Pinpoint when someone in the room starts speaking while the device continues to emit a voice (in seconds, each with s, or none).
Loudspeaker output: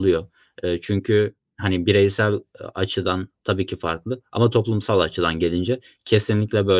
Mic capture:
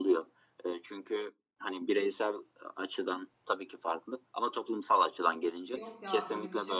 5.6 s